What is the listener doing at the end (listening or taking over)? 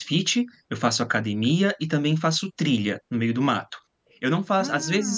listening